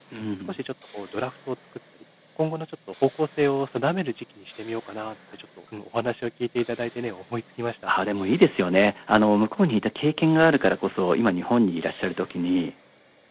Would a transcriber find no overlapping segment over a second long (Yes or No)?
Yes